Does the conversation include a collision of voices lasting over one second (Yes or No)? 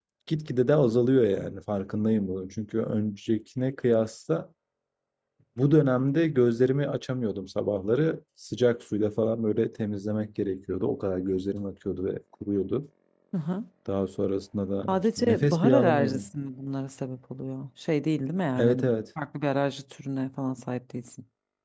Yes